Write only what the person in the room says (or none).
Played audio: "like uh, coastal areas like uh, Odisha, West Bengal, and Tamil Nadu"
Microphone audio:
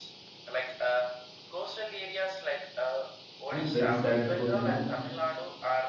i'm very sad because you know